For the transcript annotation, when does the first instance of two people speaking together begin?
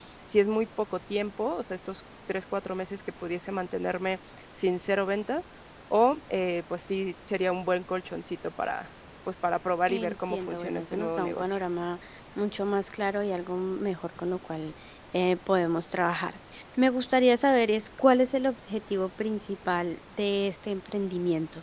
9.9 s

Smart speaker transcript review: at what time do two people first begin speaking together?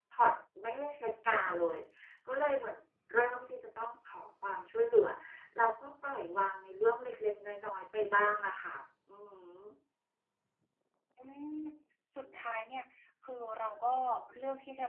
none

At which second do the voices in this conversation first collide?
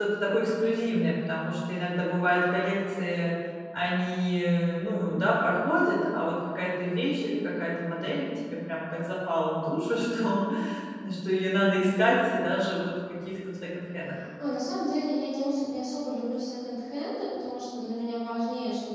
none

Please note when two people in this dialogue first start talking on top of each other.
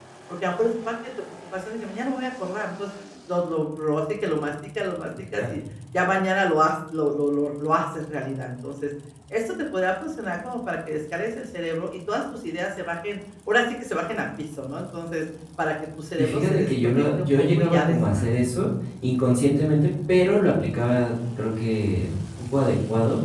16.2 s

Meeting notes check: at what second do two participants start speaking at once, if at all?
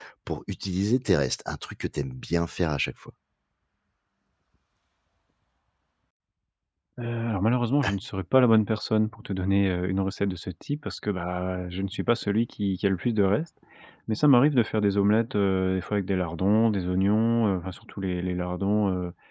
none

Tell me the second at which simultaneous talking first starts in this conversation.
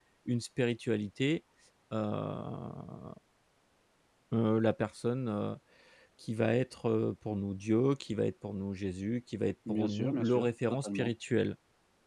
9.7 s

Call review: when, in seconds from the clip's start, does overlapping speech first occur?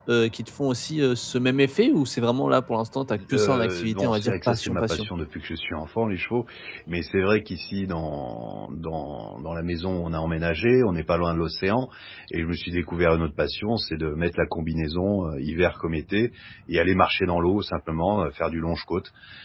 3.2 s

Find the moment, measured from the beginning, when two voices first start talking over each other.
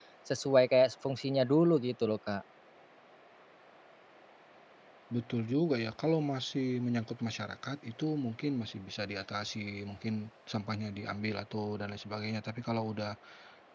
none

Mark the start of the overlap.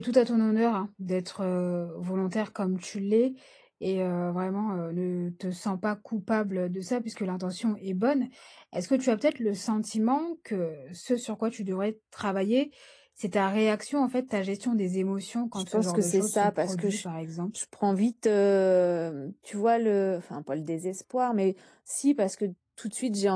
15.6 s

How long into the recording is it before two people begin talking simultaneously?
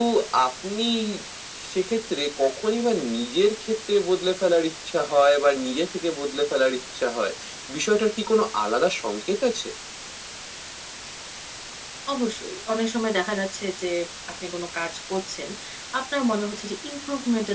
none

